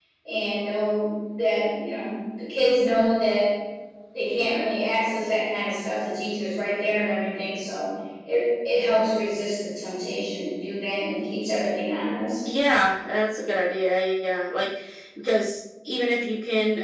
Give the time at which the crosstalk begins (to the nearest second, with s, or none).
none